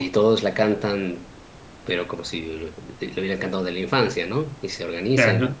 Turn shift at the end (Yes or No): No